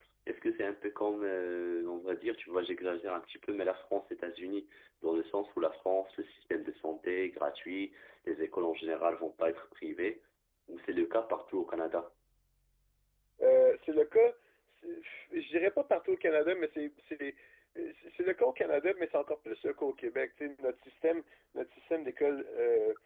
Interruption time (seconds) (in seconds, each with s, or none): none